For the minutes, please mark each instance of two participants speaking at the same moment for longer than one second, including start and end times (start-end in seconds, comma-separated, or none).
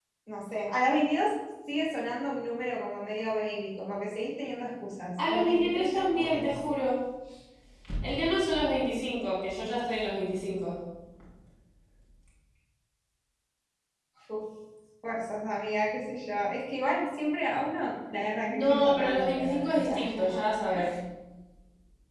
5.3-6.8, 18.5-20.4